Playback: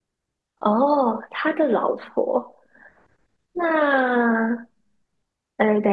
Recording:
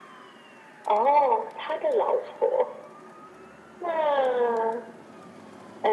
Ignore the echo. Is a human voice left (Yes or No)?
No